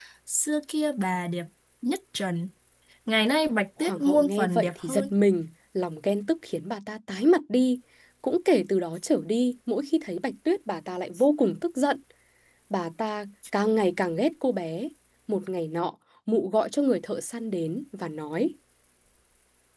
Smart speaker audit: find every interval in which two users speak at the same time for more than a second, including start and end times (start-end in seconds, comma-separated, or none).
3.8-5.1